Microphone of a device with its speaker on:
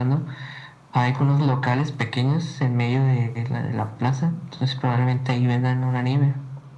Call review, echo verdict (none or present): present